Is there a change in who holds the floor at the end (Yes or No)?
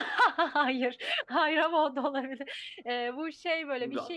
No